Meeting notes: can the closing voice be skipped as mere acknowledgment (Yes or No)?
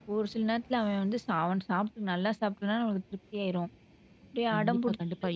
No